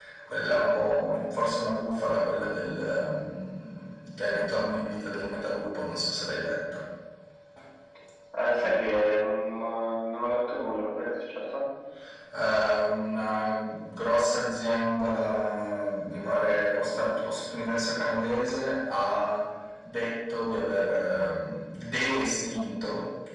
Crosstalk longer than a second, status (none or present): none